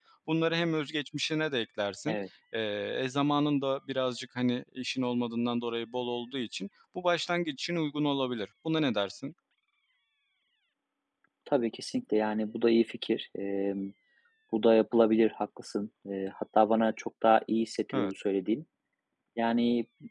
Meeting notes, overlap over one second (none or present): none